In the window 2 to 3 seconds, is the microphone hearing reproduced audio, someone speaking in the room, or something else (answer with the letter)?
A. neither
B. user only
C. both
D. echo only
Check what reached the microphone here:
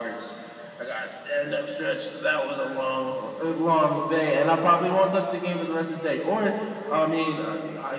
D